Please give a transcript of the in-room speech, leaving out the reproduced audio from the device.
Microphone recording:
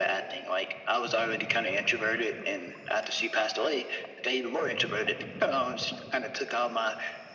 none

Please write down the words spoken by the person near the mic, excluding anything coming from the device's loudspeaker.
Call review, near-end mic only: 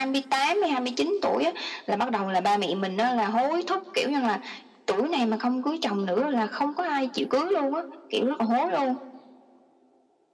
none

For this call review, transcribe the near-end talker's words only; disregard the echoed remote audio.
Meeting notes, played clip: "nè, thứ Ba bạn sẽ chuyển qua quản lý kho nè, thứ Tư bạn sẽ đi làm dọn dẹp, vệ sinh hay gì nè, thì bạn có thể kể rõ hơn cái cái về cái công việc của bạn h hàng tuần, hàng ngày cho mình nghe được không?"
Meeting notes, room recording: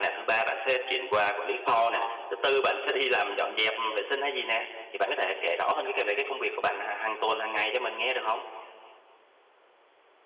none

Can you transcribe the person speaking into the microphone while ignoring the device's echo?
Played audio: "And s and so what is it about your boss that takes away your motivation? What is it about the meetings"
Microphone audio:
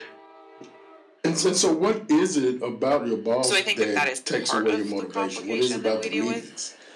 so I think that that is part of the complication that we deal with.

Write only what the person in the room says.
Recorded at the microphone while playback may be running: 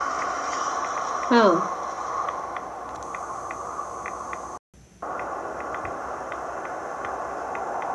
हाँ।

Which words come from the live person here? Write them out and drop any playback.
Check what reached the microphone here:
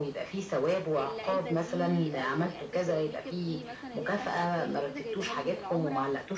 العلبة دي أو علبة الmakeup دي مثلًا اللي هي بتاعة الأطفال اللي تيتة جايباها لي من العُمرة

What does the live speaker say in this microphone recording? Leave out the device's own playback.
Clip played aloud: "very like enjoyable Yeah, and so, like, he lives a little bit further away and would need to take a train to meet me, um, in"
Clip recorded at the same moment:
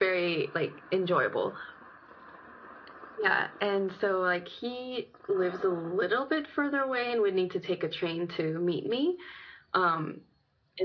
none

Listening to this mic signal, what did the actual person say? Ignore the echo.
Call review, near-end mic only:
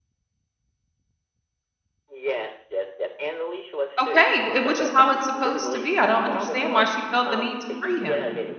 Okay, w which is how it's supposed to be. I don't understand why she felt the need to free him.

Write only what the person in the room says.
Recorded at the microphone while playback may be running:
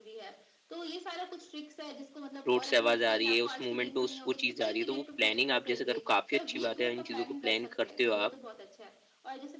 रोड से आवाज़ आ रही है, उस मोमेंट में उस वो चीज़ जा रही है, तो वो प्लानिंग आप जैसे करो काफ़ी अच्छी बात है, इन चीज़ों को प्लान करते हो आप।

